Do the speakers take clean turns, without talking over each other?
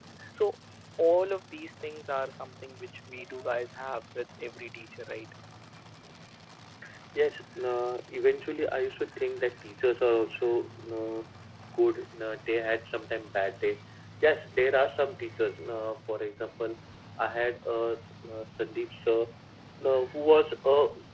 Yes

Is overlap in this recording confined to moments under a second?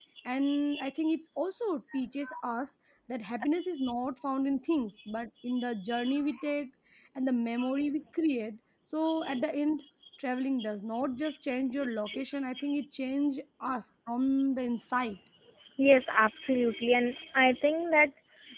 Yes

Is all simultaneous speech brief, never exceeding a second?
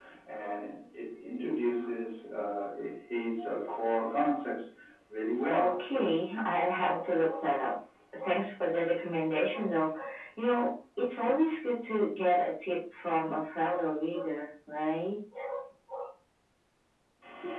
Yes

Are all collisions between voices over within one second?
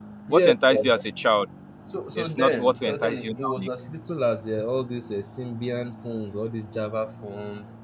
No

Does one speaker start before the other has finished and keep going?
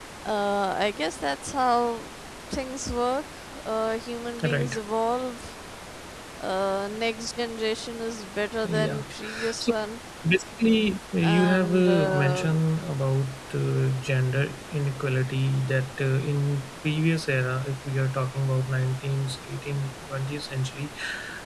Yes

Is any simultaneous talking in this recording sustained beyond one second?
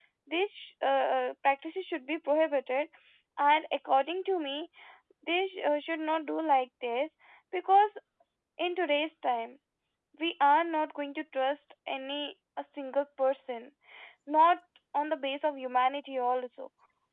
No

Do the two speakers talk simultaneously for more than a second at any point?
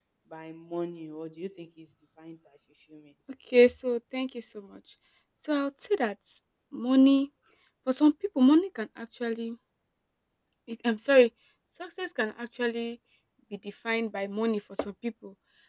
No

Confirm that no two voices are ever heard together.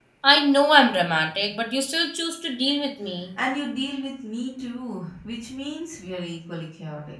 Yes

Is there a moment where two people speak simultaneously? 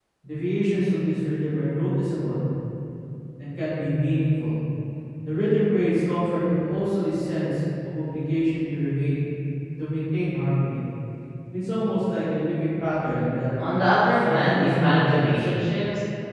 Yes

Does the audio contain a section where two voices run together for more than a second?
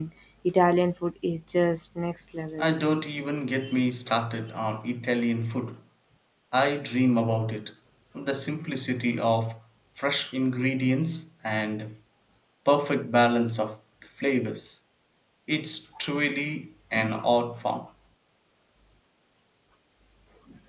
No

